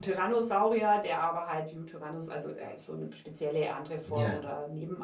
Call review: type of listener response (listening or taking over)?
listening